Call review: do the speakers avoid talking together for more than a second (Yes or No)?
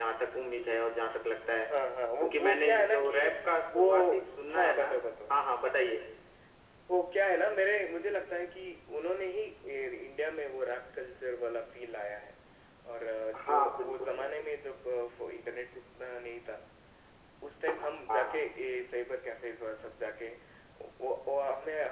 No